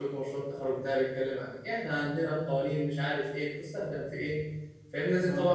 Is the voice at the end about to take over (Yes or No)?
No